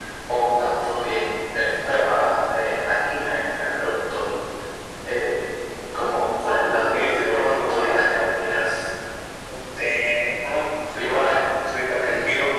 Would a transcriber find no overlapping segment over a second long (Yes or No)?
No